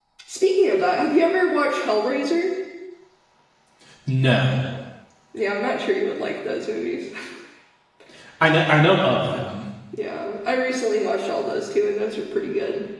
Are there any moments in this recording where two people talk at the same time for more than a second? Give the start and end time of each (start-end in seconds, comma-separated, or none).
none